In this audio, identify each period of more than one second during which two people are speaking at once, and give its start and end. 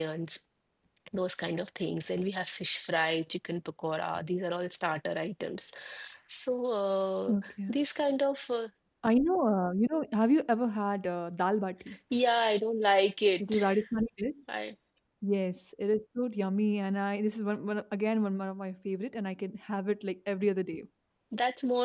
none

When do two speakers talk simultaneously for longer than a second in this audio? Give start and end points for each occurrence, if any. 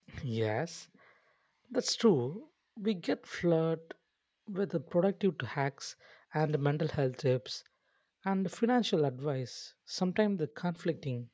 none

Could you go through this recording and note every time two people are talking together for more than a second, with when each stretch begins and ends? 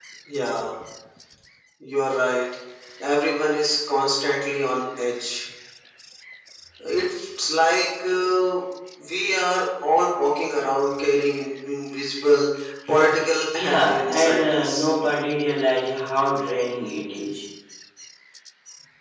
13.5-14.9

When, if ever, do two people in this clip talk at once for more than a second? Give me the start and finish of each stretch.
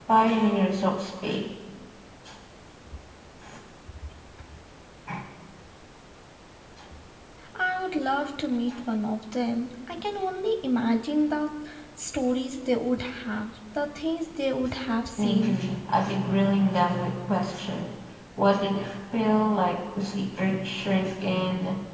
none

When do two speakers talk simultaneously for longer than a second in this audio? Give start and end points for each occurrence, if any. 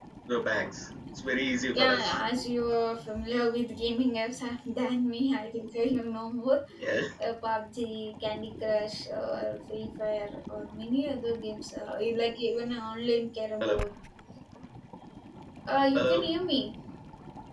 none

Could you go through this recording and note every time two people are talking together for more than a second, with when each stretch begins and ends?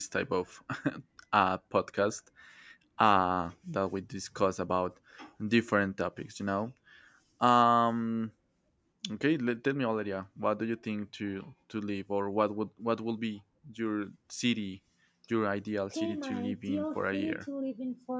15.9-17.4

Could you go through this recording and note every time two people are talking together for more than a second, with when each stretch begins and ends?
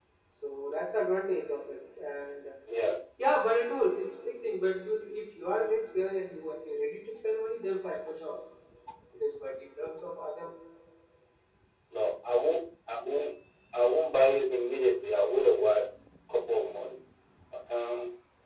none

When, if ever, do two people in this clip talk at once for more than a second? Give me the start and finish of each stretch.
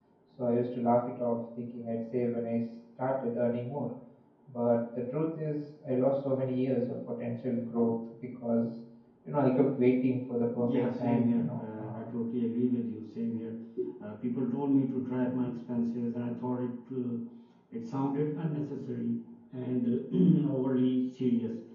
10.5-12.0

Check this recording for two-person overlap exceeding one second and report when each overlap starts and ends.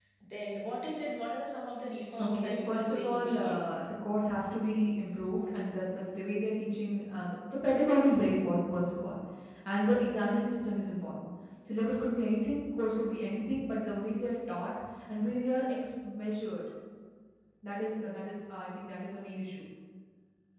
2.2-3.8

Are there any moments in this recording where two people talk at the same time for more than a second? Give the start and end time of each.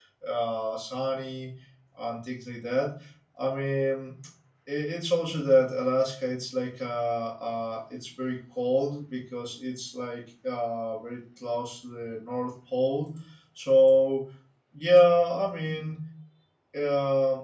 none

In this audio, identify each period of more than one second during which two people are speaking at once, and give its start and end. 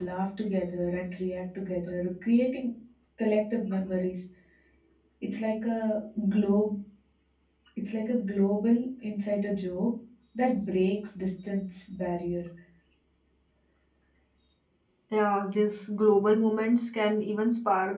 none

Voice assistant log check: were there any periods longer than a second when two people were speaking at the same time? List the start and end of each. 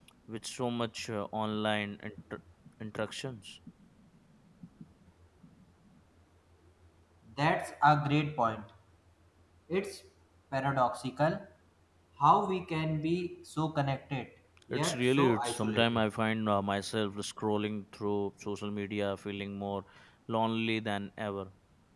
14.7-16.0

